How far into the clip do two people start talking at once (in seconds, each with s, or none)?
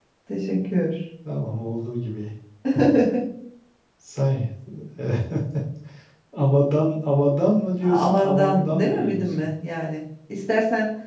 7.8 s